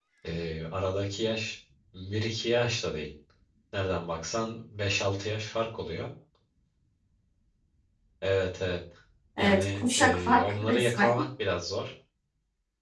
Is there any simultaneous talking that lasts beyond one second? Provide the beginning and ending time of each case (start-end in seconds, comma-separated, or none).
9.4-11.1